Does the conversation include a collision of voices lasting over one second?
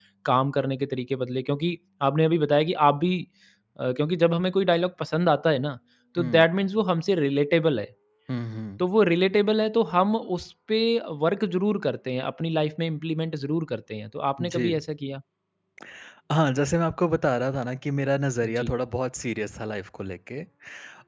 No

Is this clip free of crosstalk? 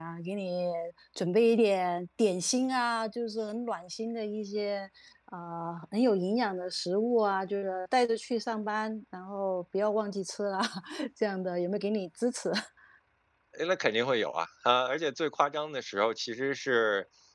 Yes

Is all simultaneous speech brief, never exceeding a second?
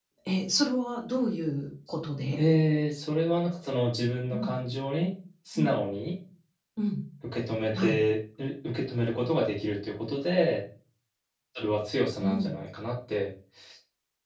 Yes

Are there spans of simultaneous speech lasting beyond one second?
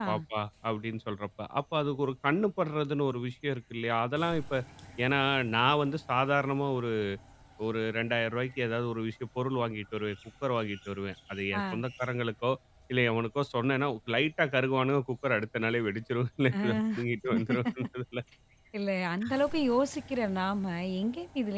No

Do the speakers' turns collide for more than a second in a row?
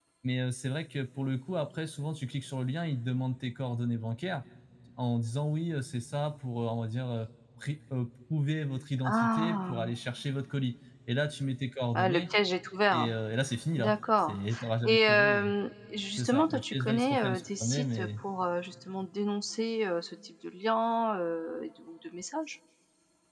Yes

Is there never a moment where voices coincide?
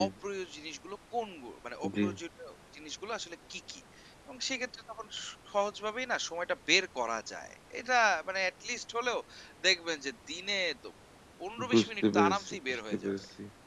No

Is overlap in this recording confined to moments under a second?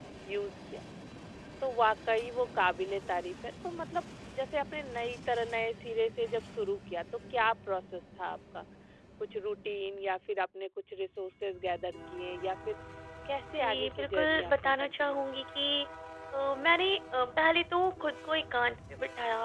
No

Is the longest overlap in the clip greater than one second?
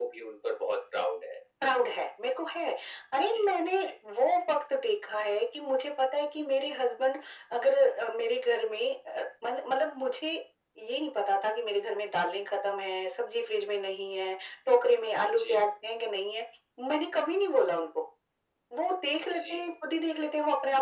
No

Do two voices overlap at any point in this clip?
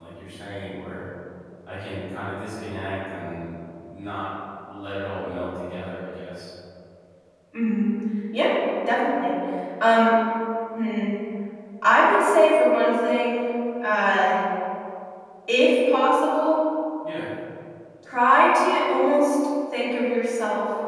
No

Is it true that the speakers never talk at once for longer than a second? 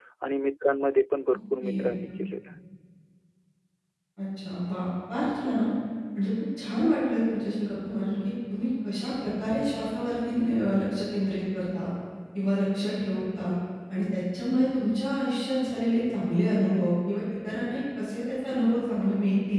Yes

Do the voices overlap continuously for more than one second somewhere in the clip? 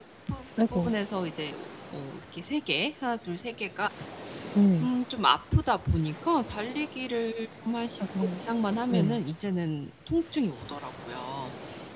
No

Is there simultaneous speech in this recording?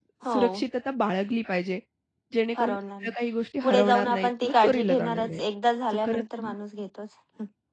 Yes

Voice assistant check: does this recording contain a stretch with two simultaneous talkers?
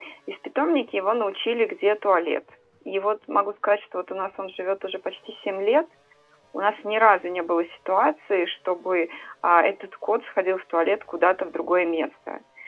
No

